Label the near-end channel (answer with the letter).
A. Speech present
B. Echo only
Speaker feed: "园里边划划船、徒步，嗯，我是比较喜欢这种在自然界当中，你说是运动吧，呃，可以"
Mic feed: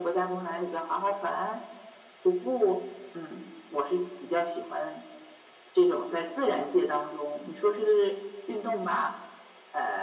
B